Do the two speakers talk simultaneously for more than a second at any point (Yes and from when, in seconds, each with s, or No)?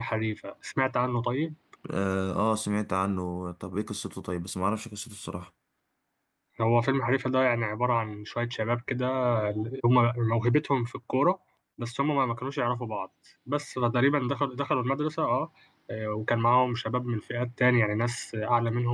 No